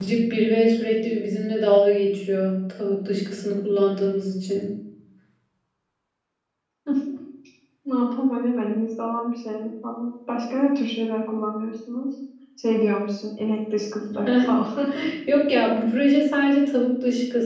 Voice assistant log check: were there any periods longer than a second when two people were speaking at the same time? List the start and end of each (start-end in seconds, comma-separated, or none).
none